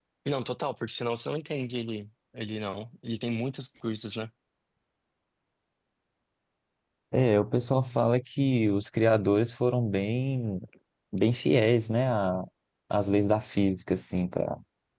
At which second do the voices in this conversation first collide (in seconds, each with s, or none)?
none